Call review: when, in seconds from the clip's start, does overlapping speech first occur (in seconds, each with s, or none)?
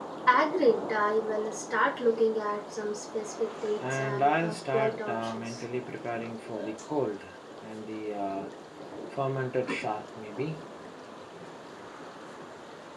3.8 s